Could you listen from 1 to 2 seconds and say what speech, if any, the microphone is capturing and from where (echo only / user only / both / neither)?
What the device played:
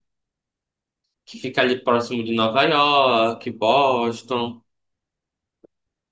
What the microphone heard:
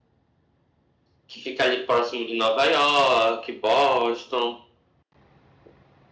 echo only